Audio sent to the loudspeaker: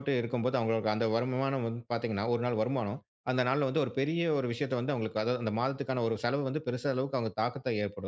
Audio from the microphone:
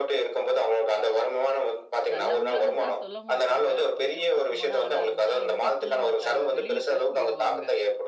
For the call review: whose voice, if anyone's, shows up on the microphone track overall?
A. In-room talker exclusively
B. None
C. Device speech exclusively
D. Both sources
D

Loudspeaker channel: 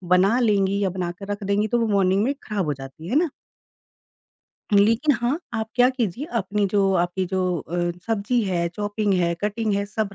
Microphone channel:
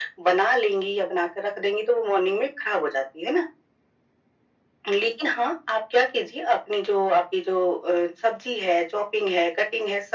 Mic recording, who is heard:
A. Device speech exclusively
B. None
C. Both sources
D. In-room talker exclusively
A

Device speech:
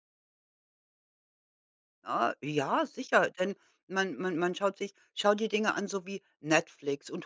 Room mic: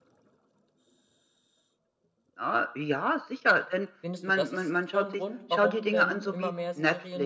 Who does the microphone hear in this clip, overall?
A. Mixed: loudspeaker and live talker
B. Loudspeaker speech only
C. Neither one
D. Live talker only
A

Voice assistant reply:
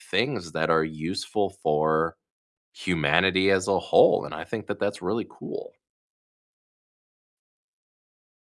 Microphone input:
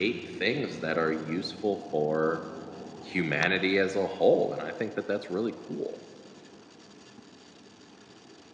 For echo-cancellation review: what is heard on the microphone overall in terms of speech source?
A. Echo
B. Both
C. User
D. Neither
A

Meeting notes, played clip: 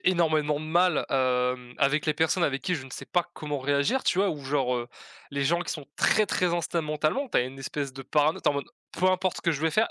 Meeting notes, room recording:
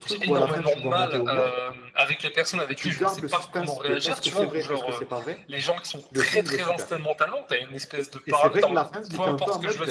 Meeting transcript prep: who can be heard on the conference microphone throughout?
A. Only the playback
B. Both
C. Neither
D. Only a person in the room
B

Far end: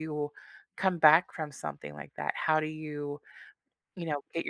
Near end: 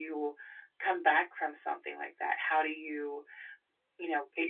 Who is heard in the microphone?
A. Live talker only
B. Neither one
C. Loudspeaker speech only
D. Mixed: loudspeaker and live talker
C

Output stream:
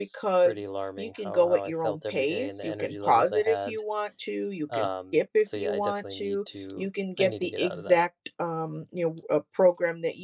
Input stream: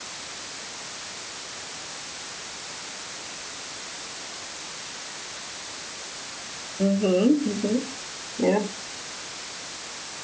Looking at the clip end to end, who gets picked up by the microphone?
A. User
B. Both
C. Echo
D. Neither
A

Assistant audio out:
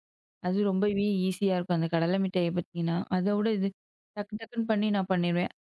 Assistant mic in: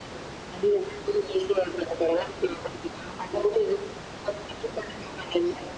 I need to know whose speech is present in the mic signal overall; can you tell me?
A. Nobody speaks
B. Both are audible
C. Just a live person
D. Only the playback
D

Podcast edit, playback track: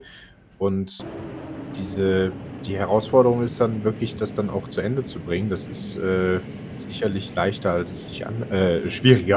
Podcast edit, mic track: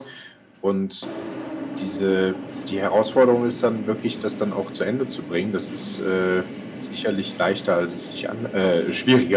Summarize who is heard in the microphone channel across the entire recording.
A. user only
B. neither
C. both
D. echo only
D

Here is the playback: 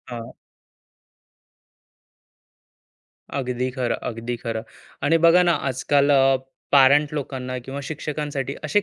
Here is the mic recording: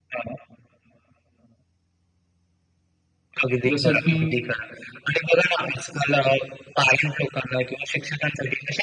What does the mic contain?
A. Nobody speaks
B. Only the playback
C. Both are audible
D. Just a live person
C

